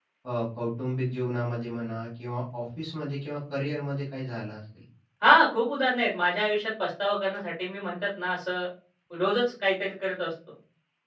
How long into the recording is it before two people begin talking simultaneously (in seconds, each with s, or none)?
none